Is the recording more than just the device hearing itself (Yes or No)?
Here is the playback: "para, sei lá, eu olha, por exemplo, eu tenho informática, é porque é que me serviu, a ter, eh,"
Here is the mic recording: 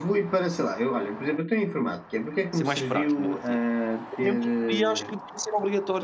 Yes